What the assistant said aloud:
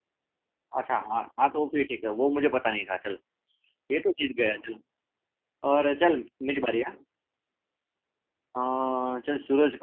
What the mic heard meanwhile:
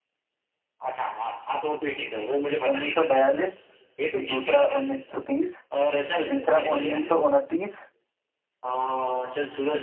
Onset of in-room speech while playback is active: 2.7 s

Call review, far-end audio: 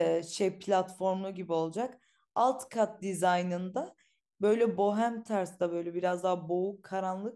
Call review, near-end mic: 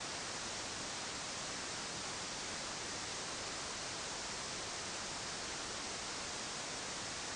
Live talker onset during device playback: none

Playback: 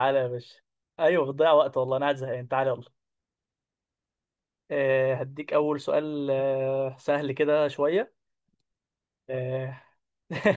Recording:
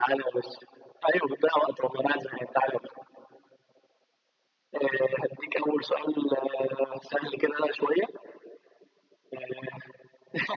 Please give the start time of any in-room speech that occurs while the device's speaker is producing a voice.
none

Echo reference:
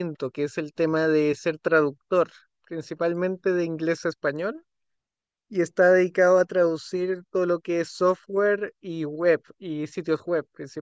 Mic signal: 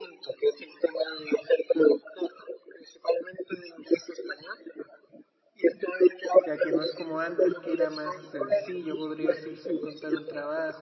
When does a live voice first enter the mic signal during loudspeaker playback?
6.5 s

